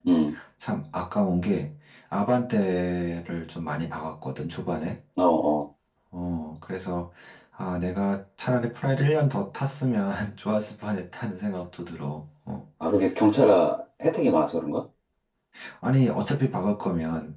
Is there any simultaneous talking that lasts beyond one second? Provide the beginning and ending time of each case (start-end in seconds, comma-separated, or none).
none